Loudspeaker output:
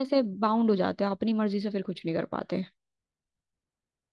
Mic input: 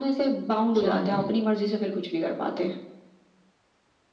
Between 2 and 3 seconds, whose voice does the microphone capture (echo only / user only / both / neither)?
echo only